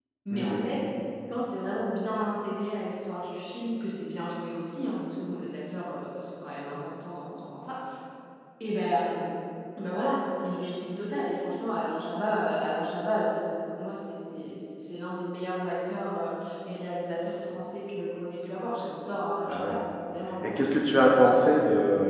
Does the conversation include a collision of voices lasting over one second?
No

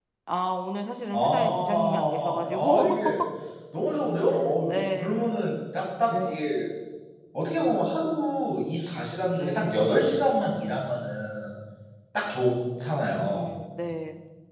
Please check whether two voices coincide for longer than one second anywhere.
Yes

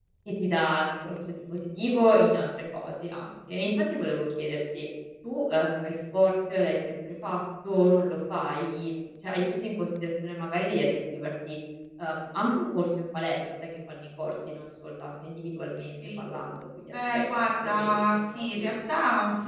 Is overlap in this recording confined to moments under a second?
No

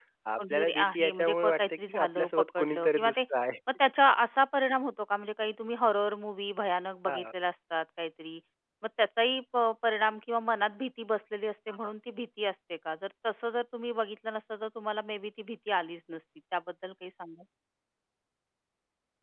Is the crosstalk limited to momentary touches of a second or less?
No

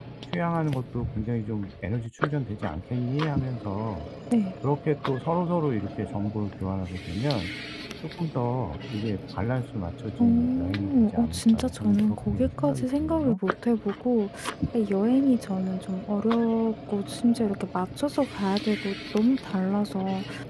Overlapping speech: Yes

